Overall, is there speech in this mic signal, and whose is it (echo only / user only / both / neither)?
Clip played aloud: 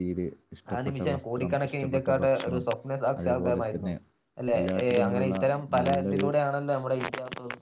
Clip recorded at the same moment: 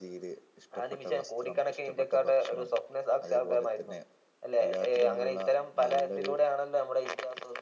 echo only